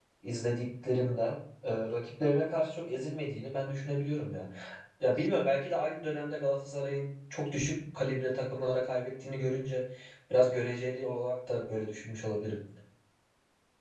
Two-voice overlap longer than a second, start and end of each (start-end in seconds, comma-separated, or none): none